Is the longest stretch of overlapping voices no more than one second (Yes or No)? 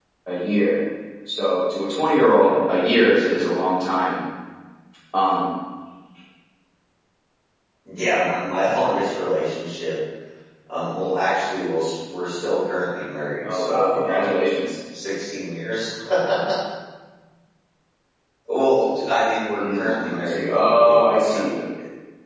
No